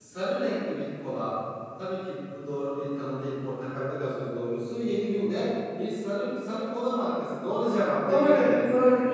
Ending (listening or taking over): taking over